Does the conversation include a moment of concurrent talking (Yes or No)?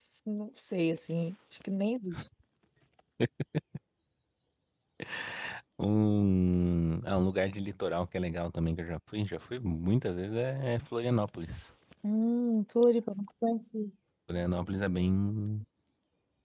No